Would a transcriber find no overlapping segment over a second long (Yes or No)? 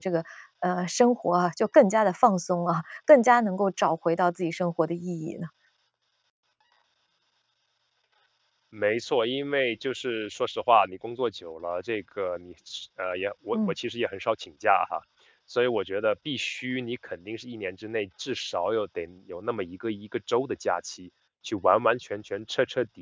Yes